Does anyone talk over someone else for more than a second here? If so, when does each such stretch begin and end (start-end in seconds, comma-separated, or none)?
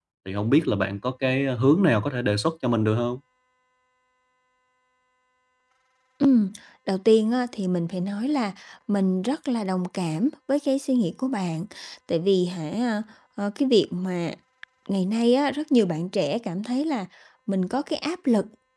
none